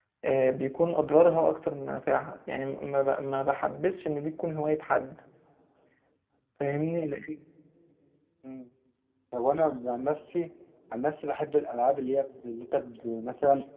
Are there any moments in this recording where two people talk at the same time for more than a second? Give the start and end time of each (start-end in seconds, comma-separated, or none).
none